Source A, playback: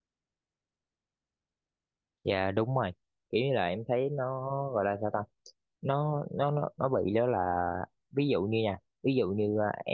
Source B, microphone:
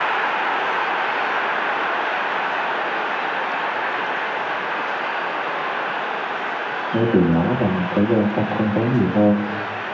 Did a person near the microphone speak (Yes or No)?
Yes